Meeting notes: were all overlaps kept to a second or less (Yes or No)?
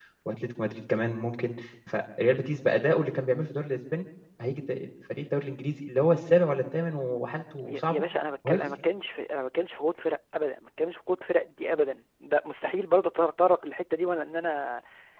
Yes